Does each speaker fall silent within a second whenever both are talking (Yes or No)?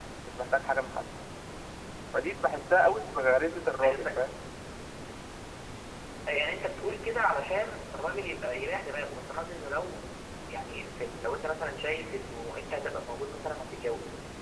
Yes